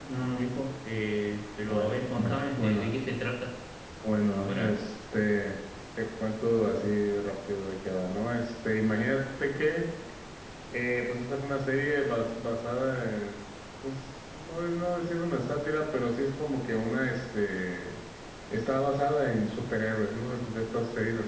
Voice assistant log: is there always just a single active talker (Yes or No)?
No